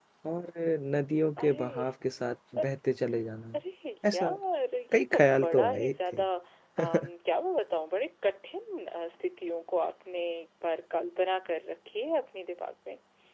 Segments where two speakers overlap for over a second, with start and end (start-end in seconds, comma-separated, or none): 4.9-6.2